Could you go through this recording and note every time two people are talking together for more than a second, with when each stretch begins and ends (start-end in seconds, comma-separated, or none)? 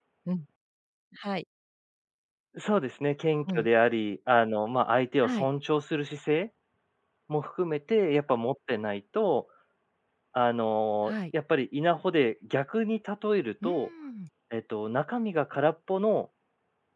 none